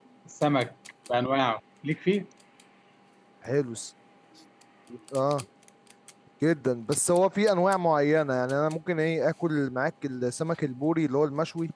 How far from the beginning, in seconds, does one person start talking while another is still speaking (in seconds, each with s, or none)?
none